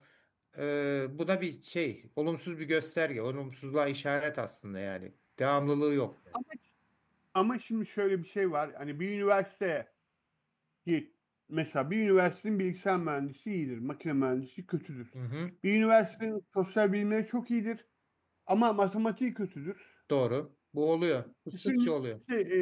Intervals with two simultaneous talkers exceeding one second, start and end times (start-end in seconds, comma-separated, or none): none